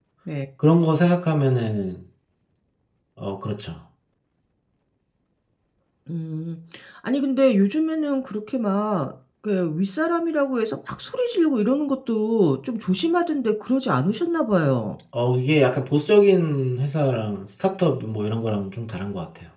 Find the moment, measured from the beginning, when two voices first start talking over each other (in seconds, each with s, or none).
none